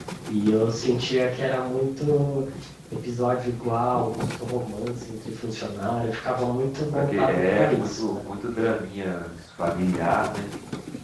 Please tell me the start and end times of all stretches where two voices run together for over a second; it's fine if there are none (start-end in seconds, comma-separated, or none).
6.9-8.2